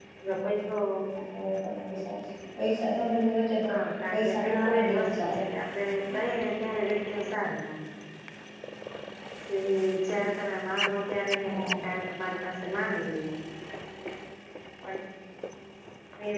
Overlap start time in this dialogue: 4.1 s

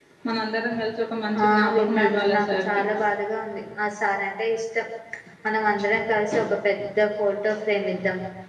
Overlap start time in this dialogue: 1.5 s

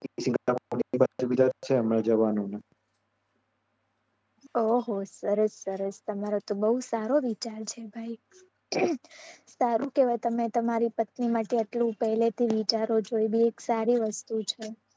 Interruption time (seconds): none

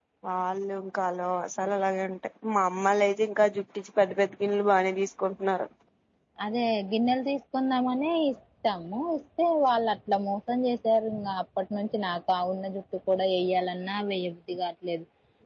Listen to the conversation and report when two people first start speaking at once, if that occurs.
none

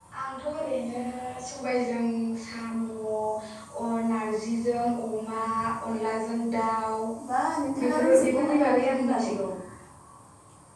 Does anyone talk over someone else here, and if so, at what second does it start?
7.8 s

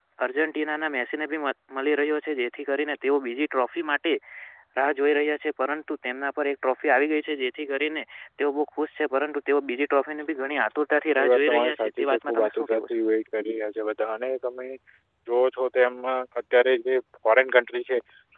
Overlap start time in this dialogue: 11.2 s

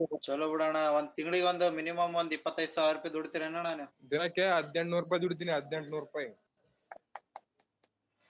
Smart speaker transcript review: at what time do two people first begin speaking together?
none

